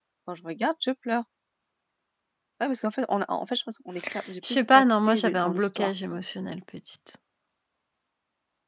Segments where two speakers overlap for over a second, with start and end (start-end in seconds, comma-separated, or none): 4.5-5.9